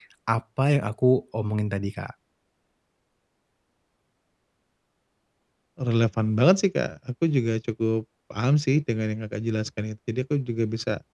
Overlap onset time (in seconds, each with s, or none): none